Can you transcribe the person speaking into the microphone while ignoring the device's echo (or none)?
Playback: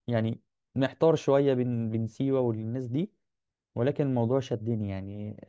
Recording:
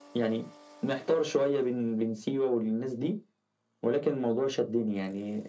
none